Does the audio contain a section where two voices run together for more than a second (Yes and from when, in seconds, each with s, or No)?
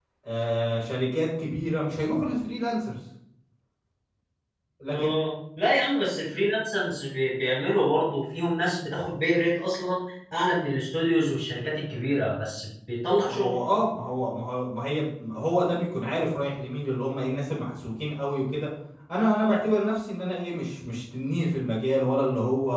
No